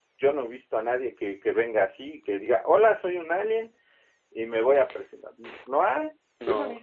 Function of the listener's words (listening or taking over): taking over